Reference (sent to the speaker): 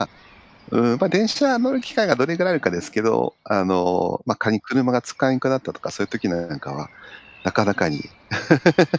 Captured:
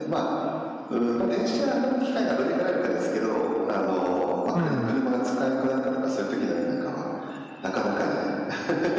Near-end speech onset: 4.5 s

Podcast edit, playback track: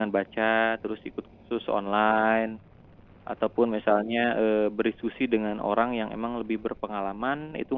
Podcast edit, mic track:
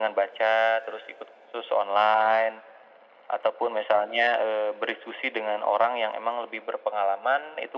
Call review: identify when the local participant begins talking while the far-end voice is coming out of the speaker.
none

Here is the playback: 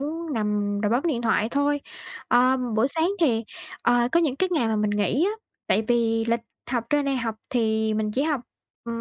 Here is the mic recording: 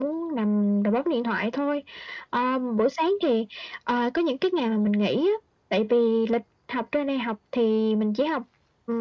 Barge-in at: none

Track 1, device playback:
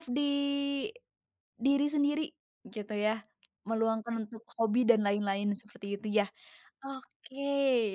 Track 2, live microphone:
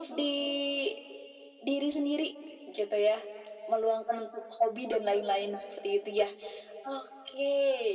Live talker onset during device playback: none

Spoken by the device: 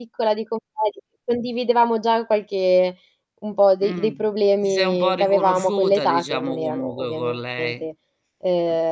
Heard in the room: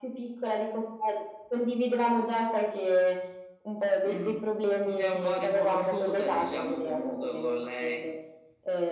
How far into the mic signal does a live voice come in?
none

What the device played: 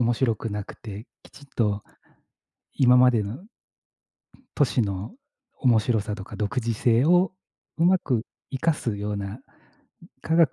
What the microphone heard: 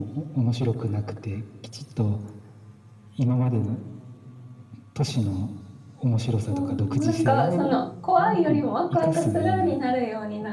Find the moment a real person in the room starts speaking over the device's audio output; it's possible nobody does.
6.5 s

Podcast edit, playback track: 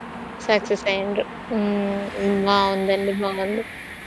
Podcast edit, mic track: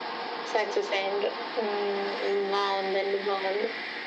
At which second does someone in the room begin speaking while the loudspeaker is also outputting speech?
none

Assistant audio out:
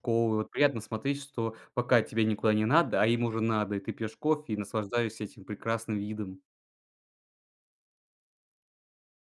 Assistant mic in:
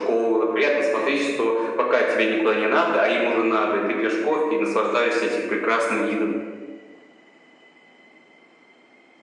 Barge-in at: none

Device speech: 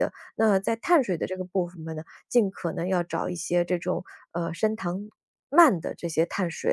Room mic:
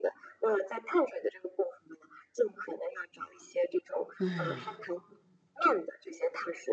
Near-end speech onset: 4.2 s

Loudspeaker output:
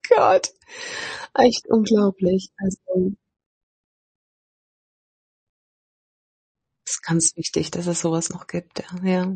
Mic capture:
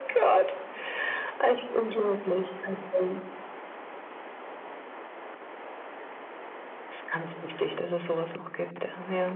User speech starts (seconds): none

